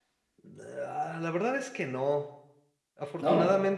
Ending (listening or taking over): listening